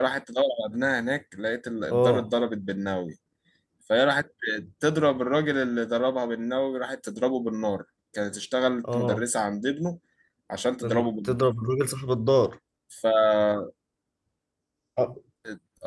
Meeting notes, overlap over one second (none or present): none